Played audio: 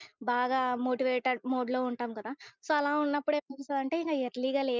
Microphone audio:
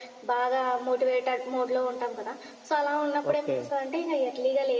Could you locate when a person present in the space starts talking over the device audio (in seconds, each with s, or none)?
3.3 s